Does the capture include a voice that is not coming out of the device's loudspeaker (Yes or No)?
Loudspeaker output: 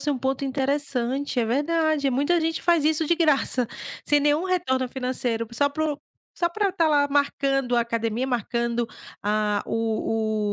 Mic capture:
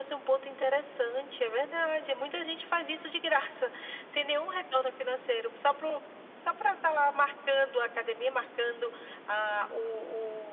No